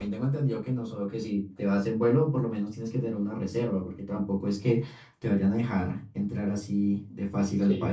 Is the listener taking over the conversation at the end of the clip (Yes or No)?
Yes